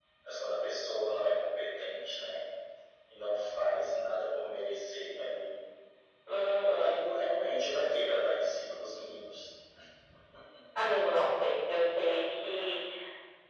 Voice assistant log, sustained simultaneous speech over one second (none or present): none